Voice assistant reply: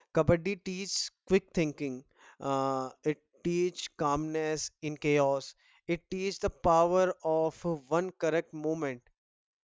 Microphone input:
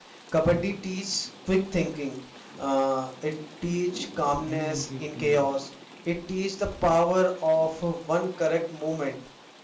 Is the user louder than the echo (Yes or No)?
No